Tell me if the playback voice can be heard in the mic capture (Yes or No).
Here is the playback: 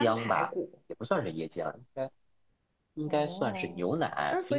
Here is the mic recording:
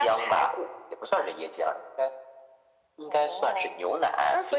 Yes